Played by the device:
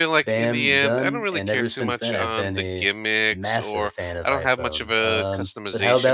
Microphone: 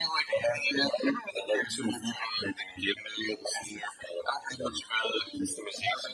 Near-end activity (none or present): none